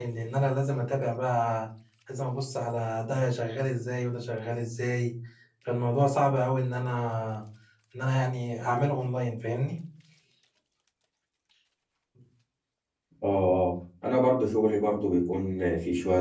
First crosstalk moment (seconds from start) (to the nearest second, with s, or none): none